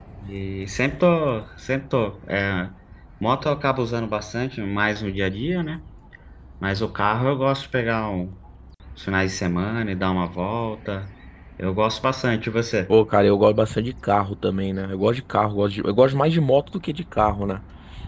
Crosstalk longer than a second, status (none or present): none